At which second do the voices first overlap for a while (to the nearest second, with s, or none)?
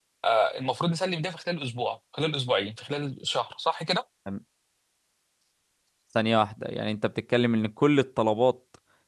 none